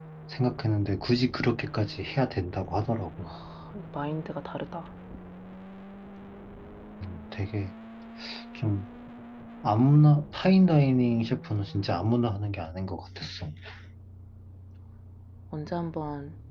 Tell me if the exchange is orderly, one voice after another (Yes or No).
Yes